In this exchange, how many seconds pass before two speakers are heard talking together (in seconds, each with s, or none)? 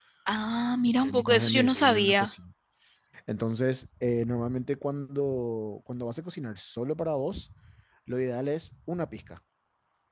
1.0 s